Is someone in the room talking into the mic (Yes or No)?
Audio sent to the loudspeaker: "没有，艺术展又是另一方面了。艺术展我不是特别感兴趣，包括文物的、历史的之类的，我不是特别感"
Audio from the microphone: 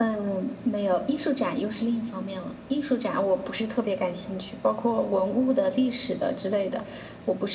No